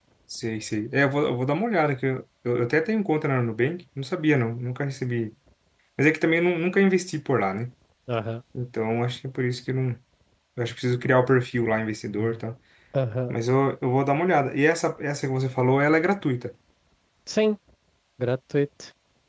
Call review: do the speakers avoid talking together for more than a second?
Yes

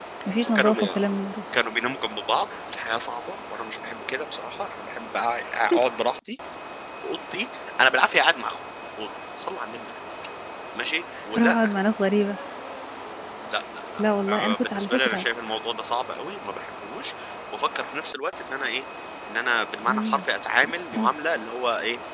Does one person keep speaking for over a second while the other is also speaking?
Yes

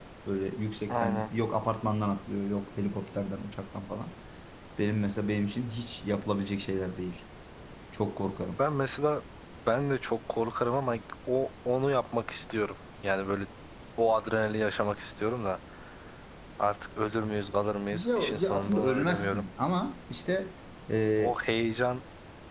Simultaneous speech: Yes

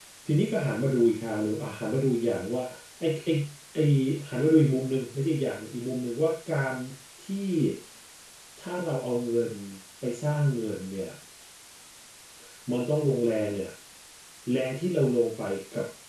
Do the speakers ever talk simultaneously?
No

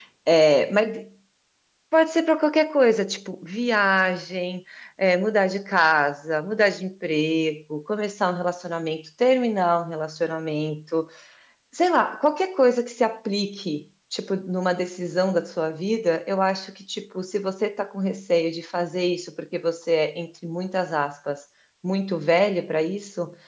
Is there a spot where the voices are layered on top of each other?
No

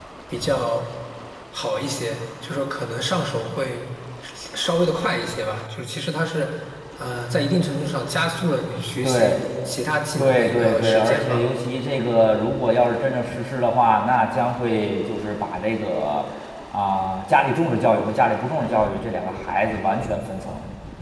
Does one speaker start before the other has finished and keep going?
Yes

